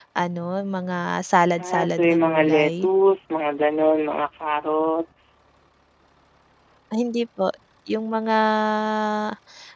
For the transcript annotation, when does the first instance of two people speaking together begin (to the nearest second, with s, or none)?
2 s